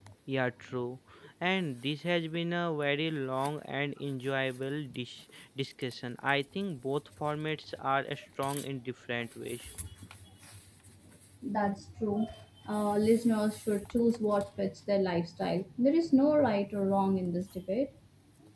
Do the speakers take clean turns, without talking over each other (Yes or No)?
Yes